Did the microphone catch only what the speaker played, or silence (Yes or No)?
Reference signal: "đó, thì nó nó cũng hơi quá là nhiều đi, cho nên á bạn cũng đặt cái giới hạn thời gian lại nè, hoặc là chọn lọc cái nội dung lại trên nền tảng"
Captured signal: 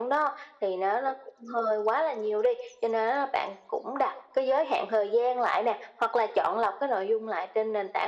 Yes